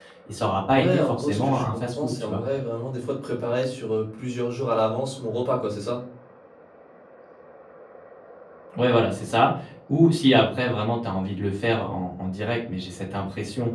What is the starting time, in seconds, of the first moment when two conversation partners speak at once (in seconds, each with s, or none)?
0.7 s